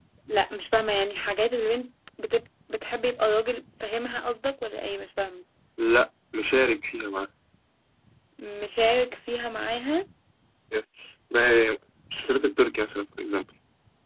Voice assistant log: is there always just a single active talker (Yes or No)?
Yes